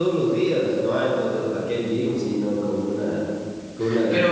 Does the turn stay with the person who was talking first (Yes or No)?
No